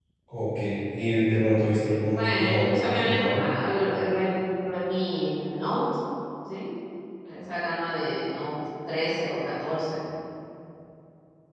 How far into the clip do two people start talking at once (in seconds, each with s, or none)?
2.1 s